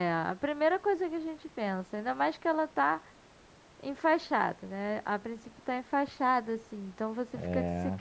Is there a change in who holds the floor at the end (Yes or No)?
No